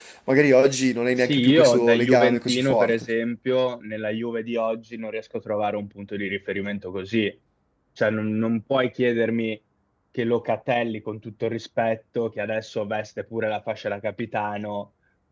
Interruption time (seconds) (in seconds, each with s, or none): 1.2 s